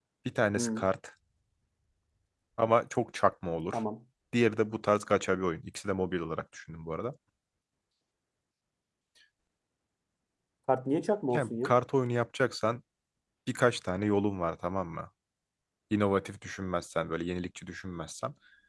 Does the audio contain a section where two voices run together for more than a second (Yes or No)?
No